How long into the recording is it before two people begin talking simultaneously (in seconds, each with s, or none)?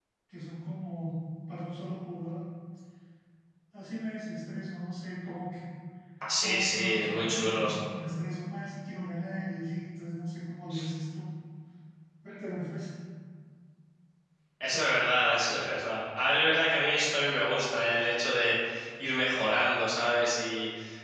6.4 s